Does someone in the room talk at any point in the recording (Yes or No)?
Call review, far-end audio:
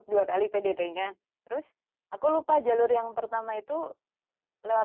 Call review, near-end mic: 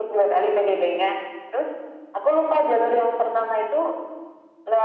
No